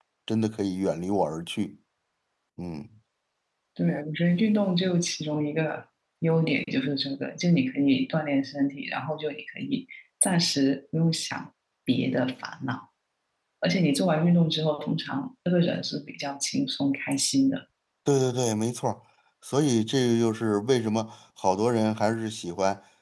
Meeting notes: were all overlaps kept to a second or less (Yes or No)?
Yes